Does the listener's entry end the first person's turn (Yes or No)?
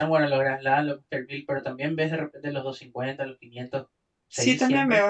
Yes